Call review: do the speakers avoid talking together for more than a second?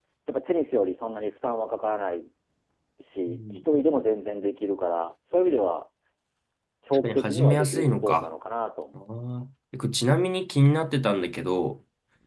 No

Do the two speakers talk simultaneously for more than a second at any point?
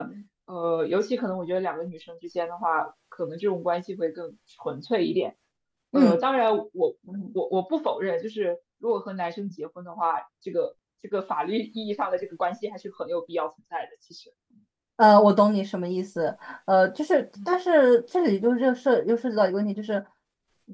No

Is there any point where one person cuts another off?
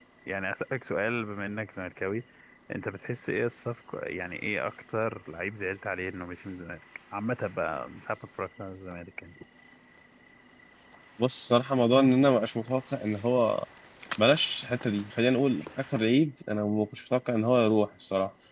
No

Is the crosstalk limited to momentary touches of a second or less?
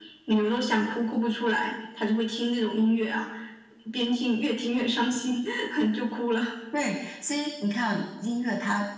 Yes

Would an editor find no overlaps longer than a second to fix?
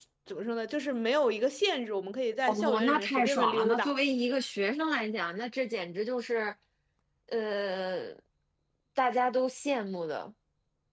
No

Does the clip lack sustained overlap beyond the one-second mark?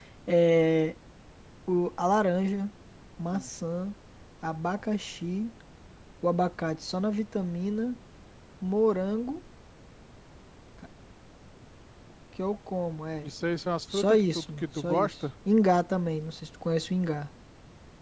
No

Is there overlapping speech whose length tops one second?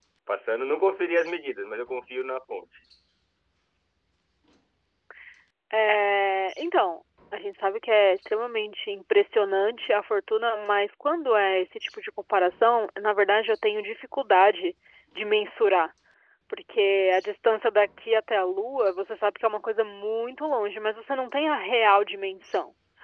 No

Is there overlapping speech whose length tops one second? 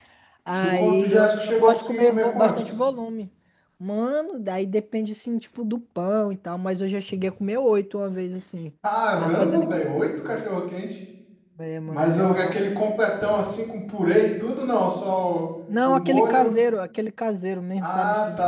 Yes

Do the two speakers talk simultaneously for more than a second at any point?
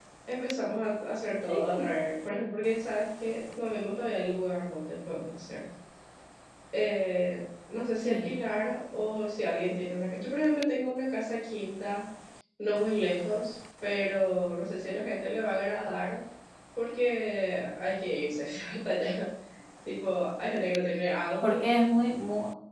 No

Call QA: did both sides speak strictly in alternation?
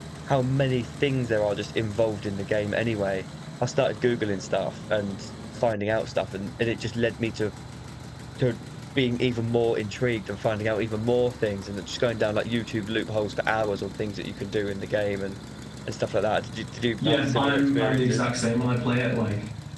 No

